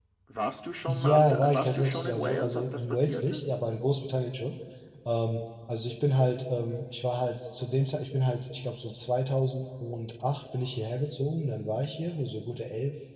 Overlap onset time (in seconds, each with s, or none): 0.9 s